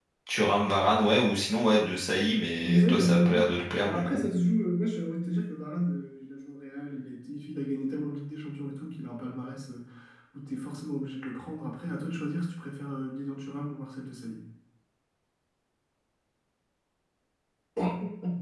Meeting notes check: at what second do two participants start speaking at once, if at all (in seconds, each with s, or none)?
2.6 s